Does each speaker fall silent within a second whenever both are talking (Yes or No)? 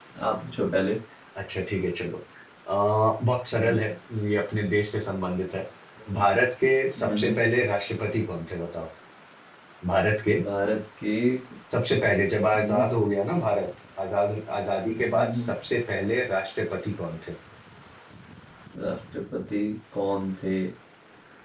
Yes